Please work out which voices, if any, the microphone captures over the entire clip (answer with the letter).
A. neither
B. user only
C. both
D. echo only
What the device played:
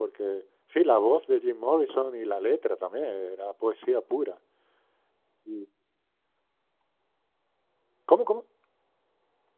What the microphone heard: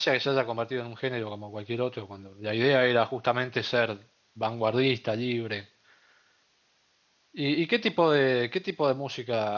B